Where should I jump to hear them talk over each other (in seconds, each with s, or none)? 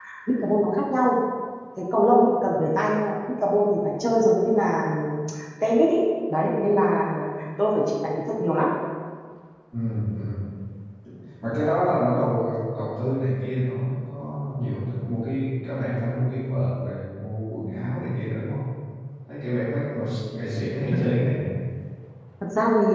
none